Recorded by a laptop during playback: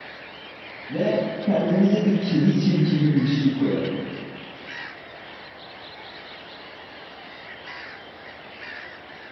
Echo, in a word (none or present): none